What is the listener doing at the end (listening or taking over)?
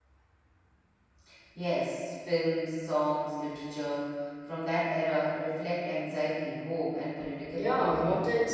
taking over